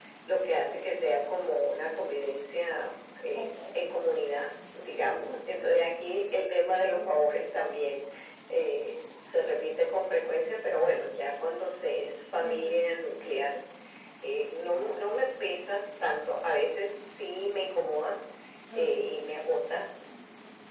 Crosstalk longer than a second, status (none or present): none